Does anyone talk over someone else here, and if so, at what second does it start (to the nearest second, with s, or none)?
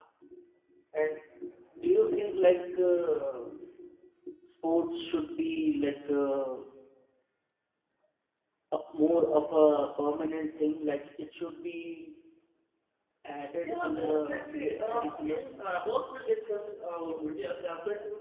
14 s